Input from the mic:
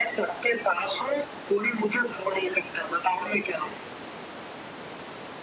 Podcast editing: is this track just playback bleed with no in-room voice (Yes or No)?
Yes